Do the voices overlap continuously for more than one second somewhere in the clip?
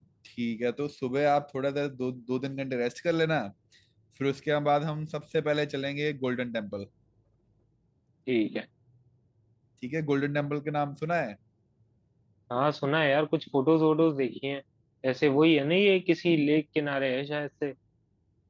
No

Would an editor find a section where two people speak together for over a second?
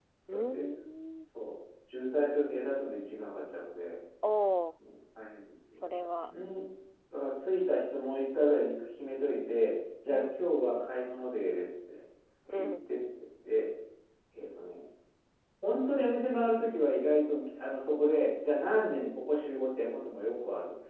No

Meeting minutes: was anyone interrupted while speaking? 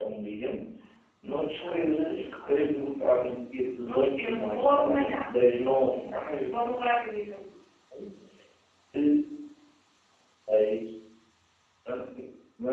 Yes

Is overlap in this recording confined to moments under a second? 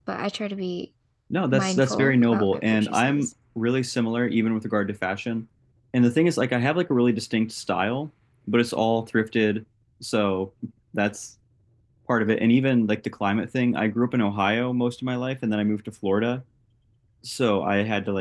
No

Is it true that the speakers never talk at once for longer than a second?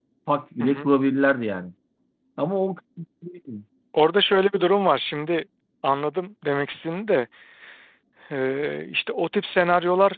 Yes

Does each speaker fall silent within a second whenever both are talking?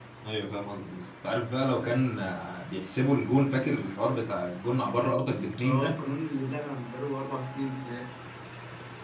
Yes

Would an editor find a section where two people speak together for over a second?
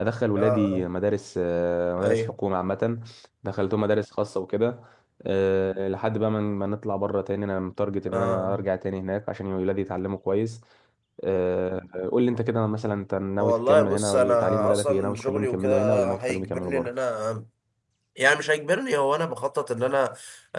Yes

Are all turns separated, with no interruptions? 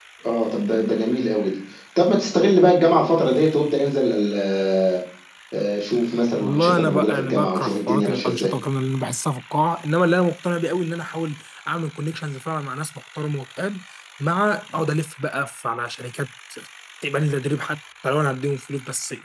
No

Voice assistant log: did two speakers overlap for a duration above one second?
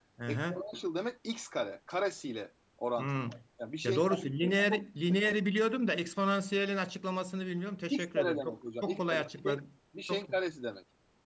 Yes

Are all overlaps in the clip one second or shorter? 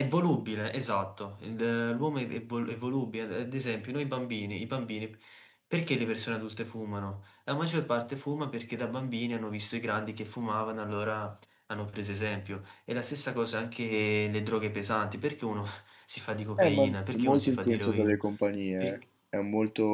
No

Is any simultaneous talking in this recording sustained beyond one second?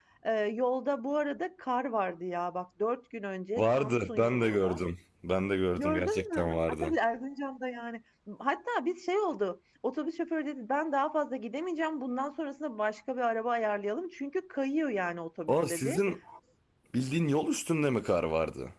Yes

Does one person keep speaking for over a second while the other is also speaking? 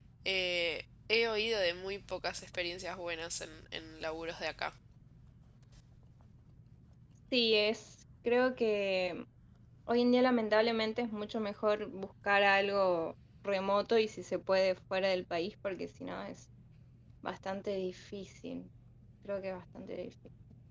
No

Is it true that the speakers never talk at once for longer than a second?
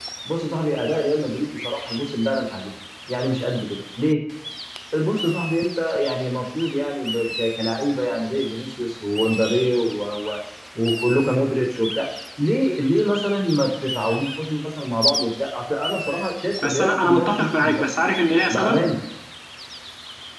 No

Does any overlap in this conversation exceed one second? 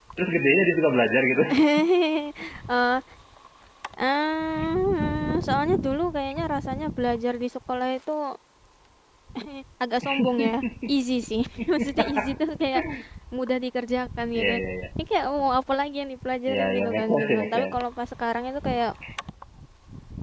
Yes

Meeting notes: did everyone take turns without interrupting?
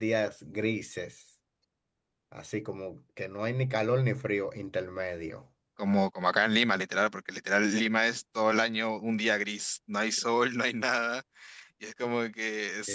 Yes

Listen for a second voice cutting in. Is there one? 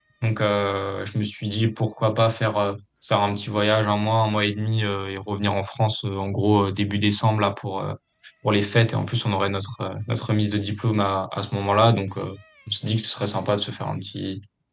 No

